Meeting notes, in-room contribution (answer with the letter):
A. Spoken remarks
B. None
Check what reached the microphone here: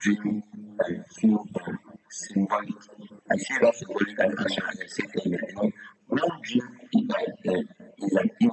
B